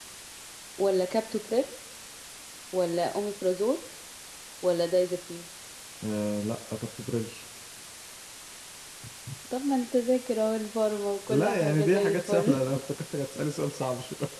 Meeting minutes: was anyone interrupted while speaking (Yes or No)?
Yes